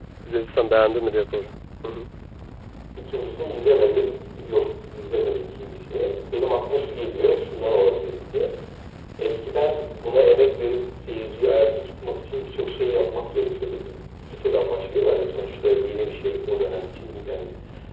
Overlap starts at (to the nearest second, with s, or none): none